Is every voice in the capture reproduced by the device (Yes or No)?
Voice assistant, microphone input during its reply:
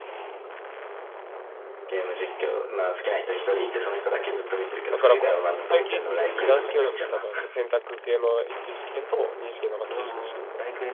No